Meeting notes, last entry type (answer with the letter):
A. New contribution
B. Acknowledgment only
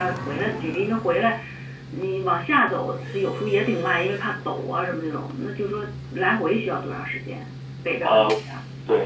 A